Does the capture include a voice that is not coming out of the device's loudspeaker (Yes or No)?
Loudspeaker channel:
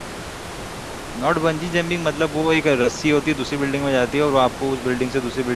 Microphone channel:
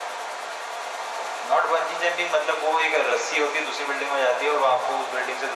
No